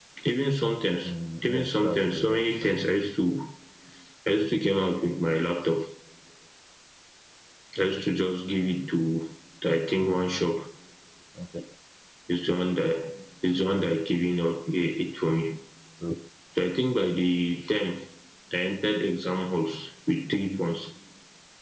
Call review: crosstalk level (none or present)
present